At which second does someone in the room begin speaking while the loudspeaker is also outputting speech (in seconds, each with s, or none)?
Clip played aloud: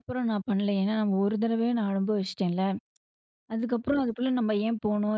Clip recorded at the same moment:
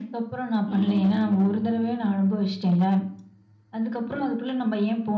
0.6 s